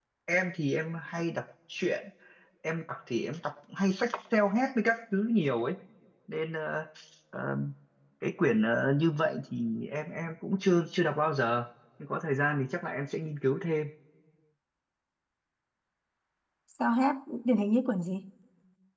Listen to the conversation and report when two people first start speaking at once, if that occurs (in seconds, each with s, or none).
none